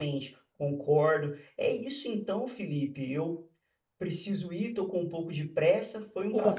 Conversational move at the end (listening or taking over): taking over